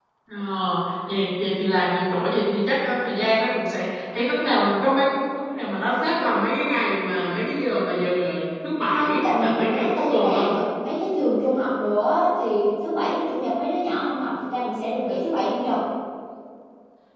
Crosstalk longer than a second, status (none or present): present